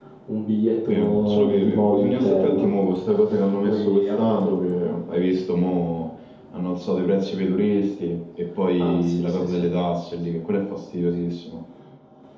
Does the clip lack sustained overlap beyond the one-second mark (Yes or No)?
No